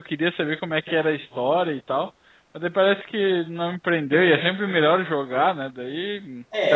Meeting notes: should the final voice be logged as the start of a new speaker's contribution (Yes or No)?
Yes